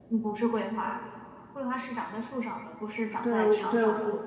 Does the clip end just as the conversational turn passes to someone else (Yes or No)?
Yes